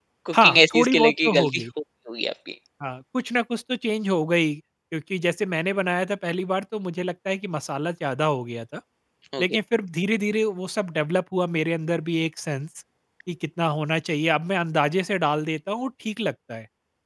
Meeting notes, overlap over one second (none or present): present